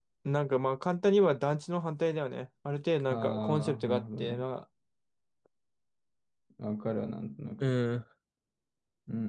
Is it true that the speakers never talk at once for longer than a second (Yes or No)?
No